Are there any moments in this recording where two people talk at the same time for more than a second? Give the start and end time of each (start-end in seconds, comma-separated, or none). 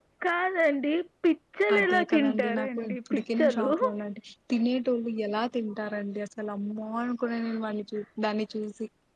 1.8-3.7